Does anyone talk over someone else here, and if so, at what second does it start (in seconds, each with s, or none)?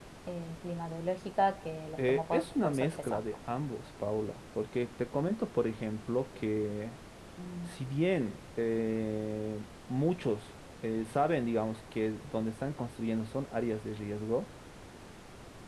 2.0 s